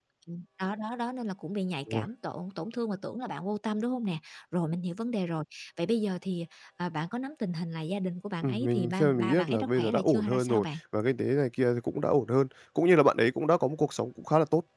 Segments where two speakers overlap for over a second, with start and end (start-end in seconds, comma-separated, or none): 8.4-10.6